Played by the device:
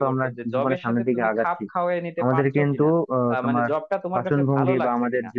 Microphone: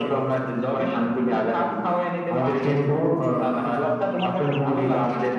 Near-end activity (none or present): none